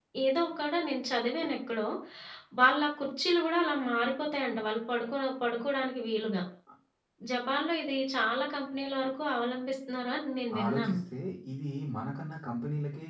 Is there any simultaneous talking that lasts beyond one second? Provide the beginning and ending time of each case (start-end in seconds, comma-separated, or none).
none